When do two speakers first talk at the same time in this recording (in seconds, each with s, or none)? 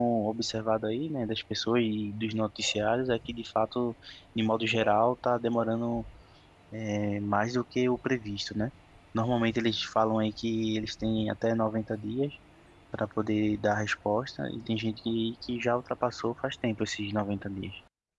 none